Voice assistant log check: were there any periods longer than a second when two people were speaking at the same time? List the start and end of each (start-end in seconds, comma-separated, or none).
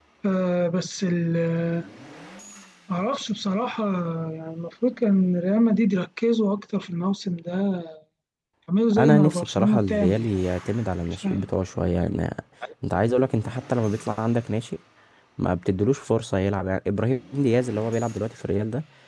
9.0-10.3